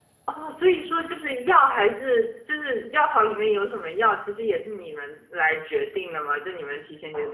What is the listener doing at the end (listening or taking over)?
listening